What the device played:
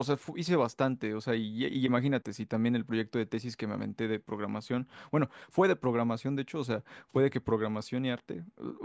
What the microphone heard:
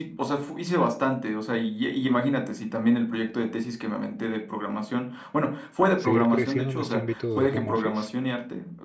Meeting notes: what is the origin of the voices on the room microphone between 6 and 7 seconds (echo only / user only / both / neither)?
both